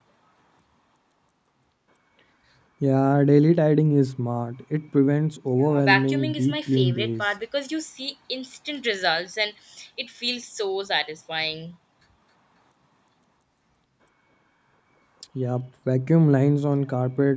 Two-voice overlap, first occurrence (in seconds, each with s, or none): 5.6 s